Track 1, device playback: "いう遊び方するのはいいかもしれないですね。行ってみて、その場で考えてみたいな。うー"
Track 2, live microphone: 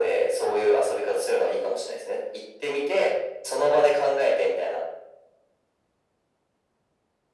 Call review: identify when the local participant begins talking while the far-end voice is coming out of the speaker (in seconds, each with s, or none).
none